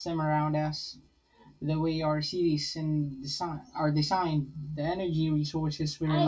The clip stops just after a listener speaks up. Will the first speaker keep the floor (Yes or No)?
No